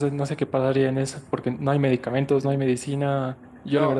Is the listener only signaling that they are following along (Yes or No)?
Yes